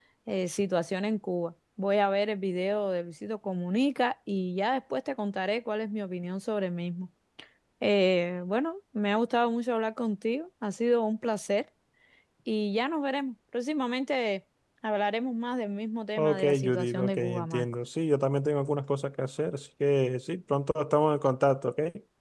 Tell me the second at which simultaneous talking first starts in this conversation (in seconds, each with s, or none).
16.2 s